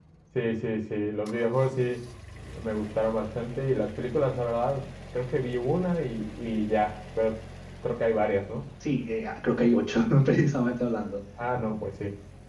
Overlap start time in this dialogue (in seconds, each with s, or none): none